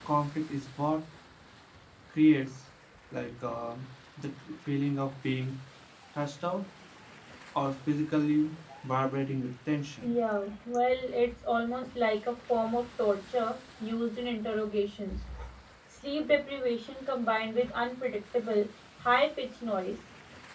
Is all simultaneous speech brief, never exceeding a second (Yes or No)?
Yes